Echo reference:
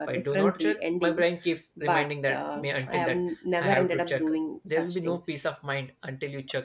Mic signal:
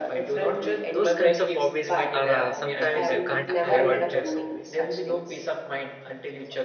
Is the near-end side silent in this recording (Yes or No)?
No